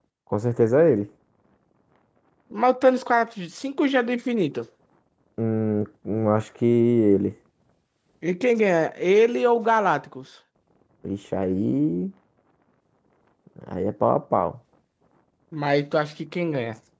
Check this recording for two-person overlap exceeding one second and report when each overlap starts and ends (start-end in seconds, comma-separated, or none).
none